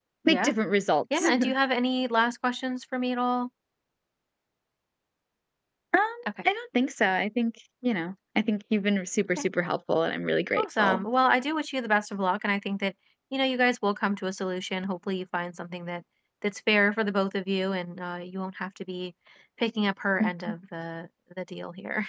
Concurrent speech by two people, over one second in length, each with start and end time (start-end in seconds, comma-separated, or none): none